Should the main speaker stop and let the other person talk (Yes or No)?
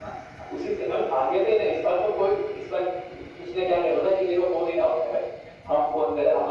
No